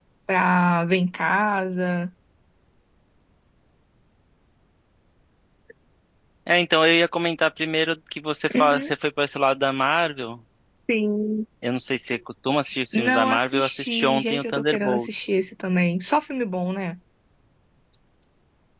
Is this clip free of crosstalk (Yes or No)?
No